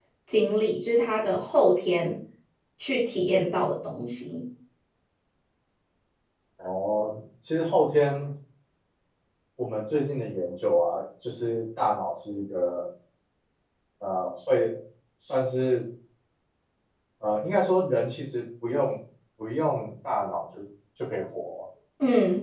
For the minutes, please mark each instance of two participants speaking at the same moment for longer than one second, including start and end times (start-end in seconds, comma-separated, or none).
none